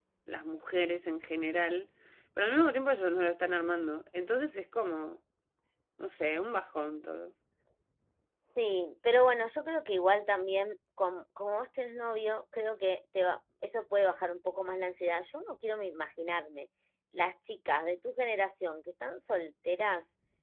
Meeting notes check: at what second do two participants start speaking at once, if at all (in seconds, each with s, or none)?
none